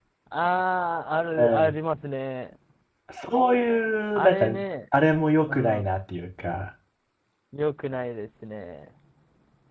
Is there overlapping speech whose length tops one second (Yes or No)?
No